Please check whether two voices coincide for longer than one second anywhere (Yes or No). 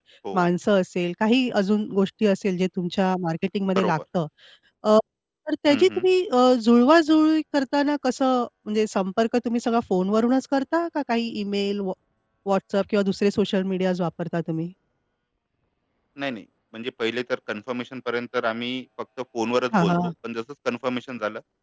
No